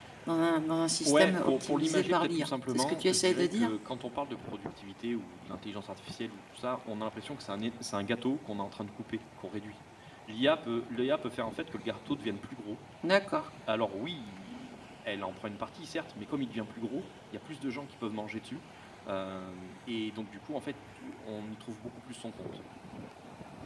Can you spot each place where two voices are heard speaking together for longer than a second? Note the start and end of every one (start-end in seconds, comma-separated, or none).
1.1-3.7